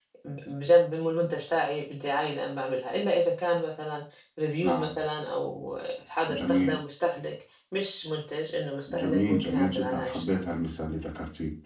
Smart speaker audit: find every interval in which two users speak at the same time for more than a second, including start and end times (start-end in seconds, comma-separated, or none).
8.9-10.5